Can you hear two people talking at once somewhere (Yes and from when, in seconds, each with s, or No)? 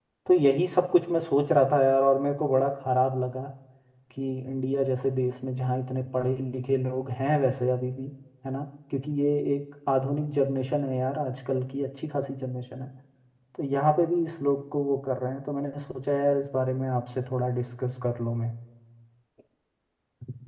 No